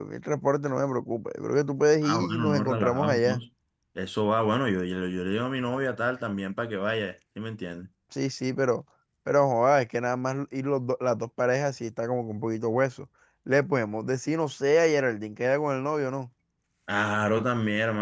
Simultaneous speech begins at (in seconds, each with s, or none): 2.0 s